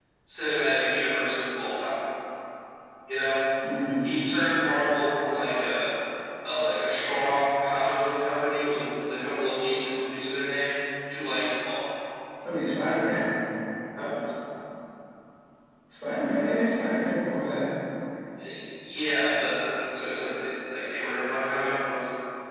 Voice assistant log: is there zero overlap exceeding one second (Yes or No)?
Yes